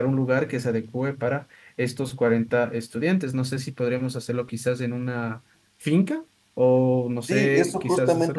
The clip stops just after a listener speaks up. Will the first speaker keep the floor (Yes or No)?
No